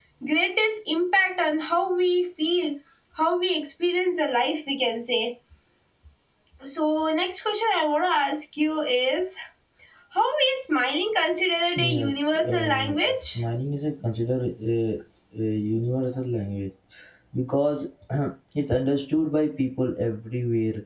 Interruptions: present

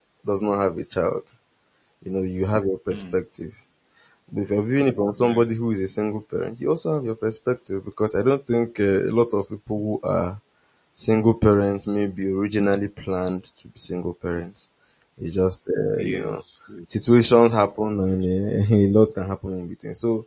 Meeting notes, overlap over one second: none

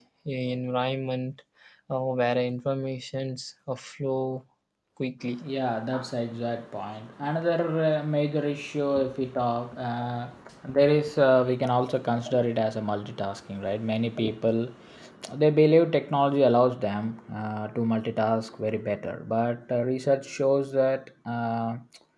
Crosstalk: none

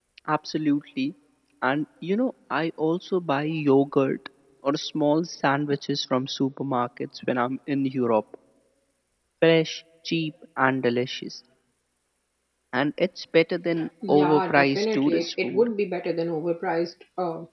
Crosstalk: present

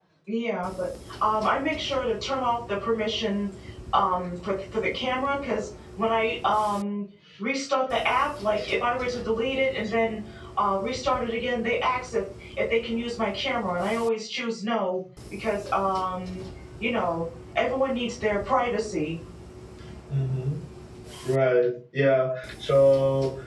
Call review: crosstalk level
none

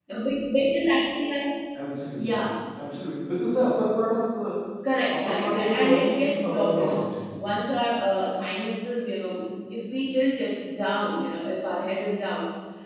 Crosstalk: present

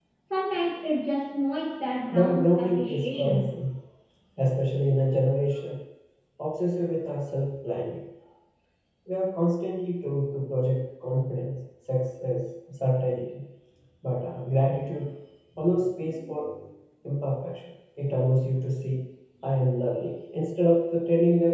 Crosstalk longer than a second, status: present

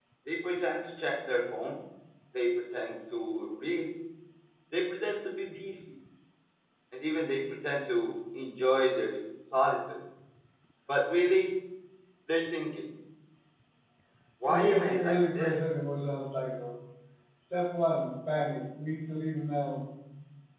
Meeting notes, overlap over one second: present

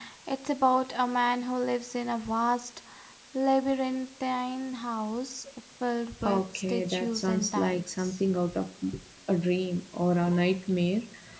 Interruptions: present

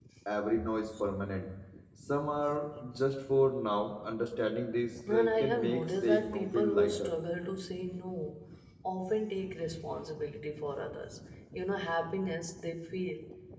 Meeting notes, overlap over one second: present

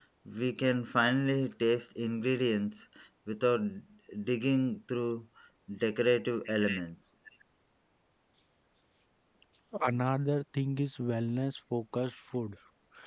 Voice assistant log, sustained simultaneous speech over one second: none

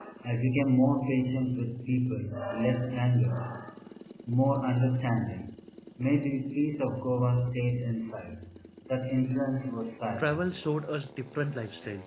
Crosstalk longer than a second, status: none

